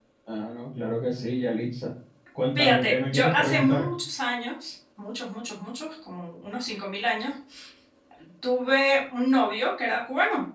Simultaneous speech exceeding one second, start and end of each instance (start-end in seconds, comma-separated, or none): 2.5-3.9